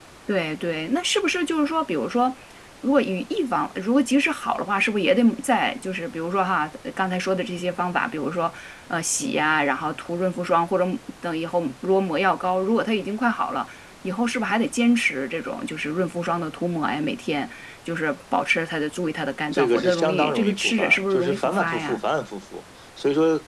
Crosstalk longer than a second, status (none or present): present